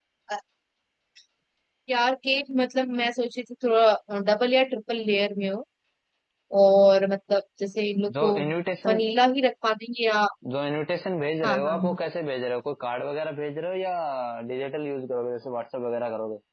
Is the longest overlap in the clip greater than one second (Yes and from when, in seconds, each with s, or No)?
No